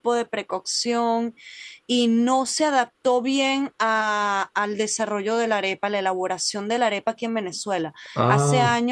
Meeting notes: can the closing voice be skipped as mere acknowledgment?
Yes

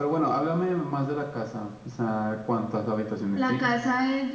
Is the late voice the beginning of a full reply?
Yes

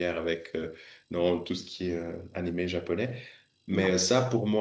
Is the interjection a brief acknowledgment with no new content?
Yes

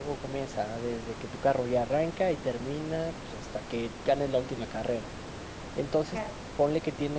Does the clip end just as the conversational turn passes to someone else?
No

